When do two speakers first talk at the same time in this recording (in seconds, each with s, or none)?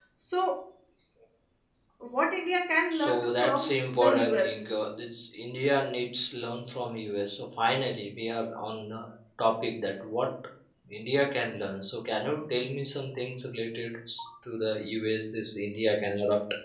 2.9 s